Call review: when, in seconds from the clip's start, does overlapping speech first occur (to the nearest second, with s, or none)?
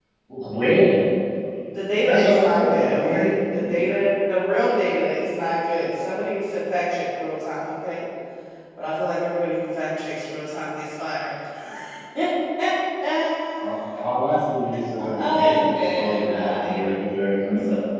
2 s